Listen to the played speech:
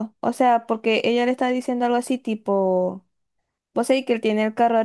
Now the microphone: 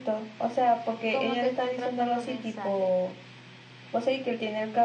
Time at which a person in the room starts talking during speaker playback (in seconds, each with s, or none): 1.1 s